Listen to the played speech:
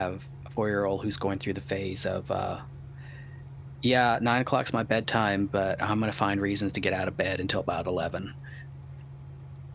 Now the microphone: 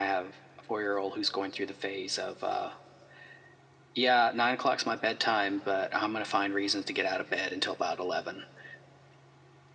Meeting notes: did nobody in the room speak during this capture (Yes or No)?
Yes